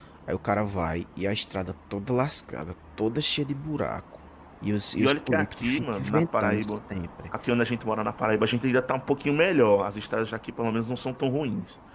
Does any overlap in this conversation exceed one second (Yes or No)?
Yes